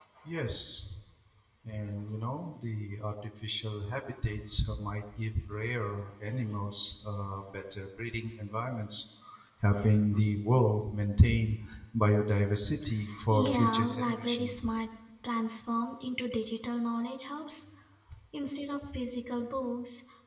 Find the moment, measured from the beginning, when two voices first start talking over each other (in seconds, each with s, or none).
13.3 s